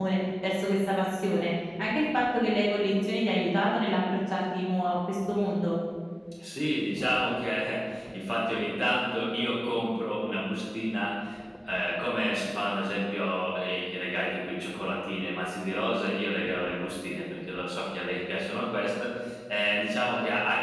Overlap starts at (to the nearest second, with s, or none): none